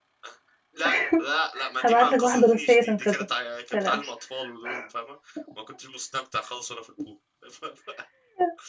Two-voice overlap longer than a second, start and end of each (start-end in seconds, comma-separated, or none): 1.8-3.1